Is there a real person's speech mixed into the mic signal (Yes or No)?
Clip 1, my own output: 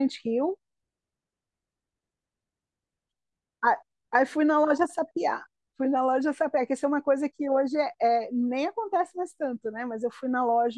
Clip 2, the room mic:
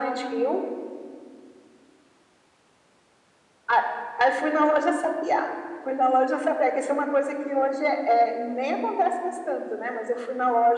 No